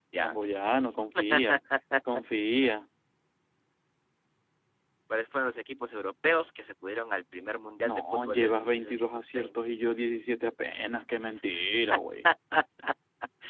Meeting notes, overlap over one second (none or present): present